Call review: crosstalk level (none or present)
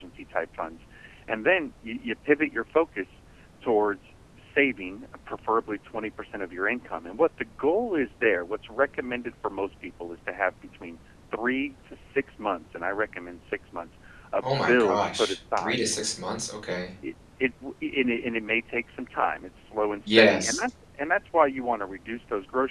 present